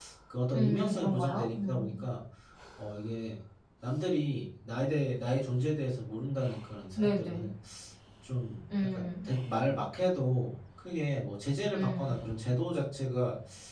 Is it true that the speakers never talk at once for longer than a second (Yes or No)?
No